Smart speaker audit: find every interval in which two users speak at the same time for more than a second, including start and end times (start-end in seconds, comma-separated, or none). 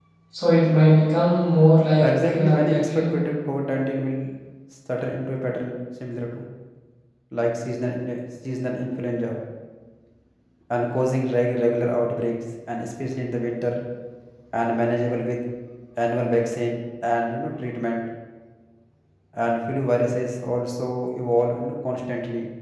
2.0-3.2